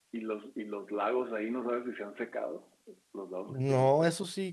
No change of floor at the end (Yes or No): No